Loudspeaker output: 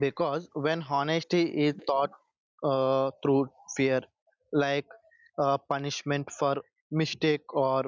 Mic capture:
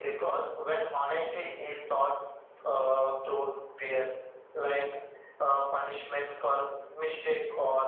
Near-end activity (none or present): none